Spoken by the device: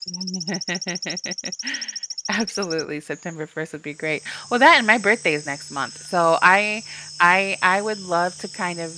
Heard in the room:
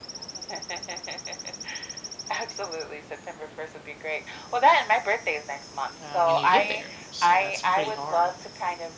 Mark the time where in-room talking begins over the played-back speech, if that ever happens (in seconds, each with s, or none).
6.0 s